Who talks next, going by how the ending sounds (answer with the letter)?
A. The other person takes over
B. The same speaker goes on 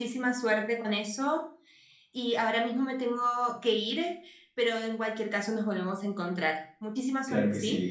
A